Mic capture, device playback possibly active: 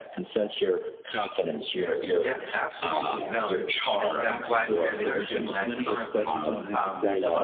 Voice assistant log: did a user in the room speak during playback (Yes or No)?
Yes